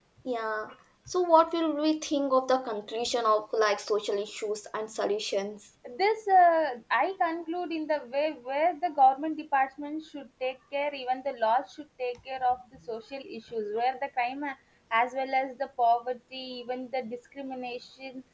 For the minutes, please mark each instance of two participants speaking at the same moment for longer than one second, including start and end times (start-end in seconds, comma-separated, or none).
none